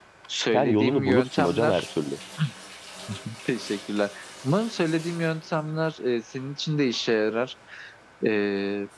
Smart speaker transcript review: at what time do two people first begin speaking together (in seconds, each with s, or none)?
0.5 s